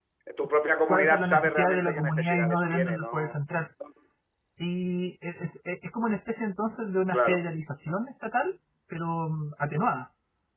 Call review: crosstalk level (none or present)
present